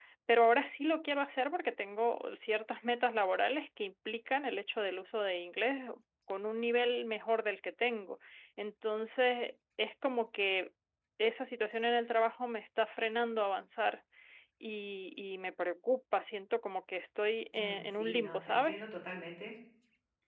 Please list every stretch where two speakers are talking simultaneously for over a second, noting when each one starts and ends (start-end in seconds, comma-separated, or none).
17.6-18.8